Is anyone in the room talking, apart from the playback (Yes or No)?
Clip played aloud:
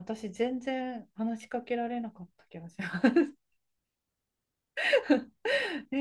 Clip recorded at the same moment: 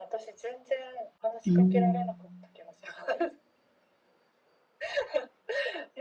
Yes